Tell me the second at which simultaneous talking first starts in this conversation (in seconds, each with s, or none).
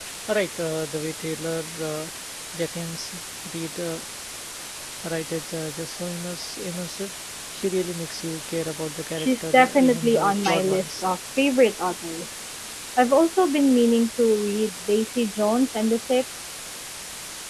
9.2 s